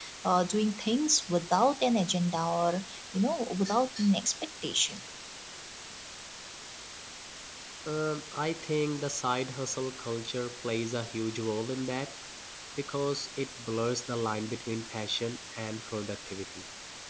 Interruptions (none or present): none